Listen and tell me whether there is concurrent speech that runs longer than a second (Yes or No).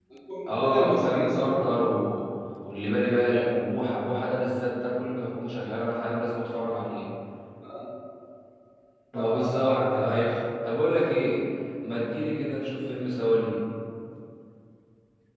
Yes